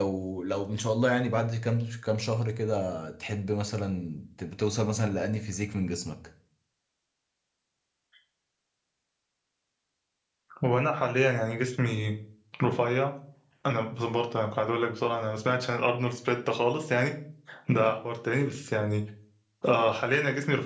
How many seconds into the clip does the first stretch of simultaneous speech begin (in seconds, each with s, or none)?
none